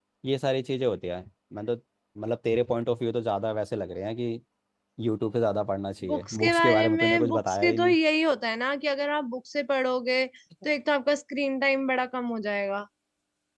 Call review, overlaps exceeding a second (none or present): present